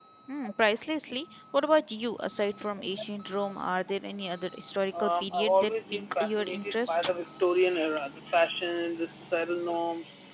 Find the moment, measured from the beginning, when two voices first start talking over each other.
5 s

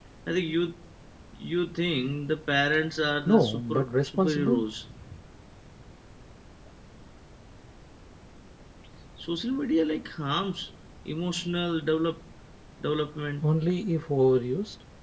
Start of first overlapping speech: 3 s

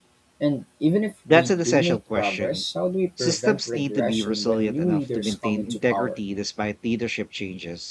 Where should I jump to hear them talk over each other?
1 s

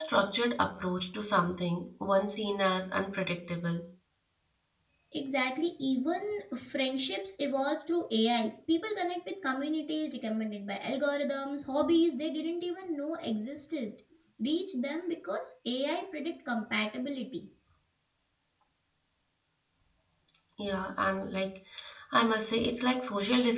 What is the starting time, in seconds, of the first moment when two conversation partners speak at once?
none

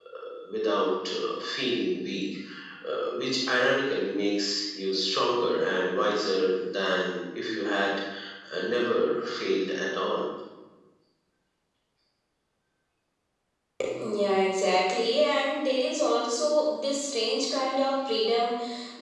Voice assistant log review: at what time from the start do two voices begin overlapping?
none

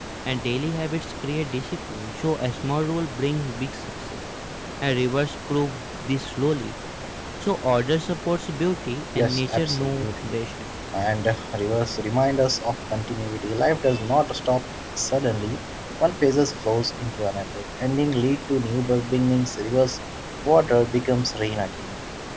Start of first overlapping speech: 9 s

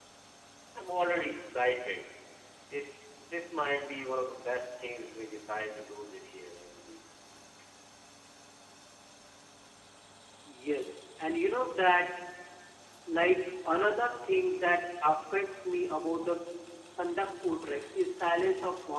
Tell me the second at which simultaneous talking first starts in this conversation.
none

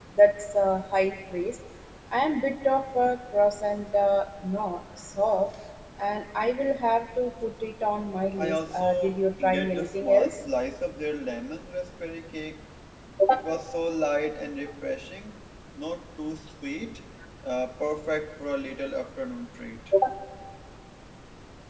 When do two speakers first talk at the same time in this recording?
8 s

